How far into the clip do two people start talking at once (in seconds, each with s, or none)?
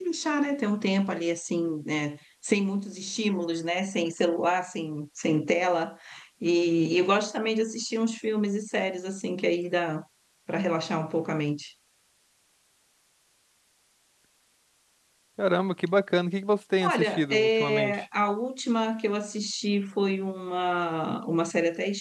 16.8 s